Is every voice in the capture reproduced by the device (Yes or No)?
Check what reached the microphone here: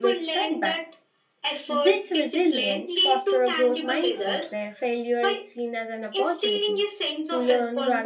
No